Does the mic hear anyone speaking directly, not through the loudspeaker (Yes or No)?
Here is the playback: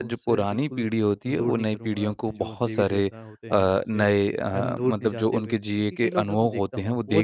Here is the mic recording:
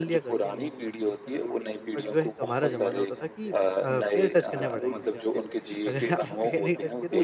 Yes